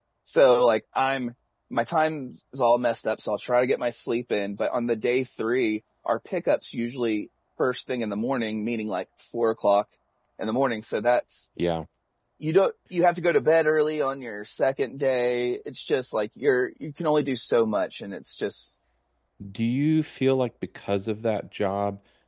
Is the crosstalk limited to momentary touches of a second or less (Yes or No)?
Yes